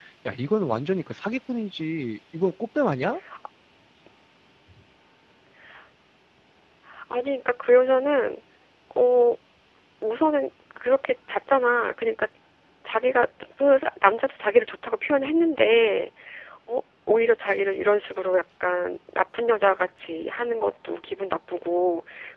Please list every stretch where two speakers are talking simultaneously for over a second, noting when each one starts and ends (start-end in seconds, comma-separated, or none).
none